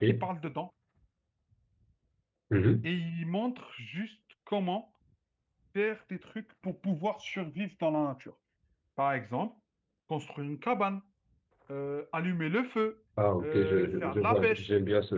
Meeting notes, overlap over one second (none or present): present